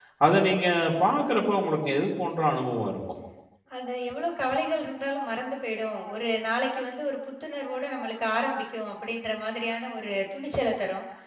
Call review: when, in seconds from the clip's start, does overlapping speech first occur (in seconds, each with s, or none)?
none